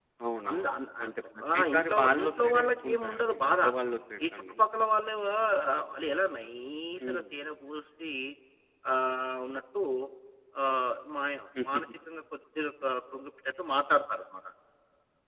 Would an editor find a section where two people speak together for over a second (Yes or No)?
Yes